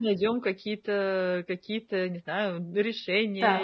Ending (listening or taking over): taking over